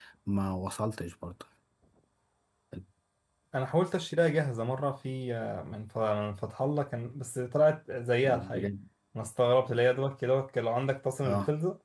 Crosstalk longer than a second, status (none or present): none